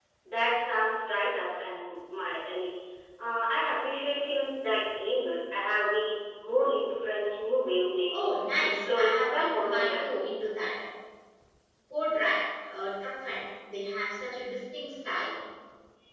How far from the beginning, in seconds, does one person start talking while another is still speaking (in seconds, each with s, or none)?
8.1 s